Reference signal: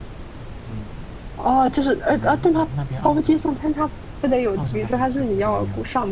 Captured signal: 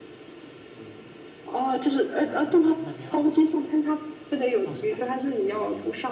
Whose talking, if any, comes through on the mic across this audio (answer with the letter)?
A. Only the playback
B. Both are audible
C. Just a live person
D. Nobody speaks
A